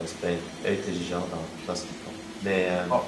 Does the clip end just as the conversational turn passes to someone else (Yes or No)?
No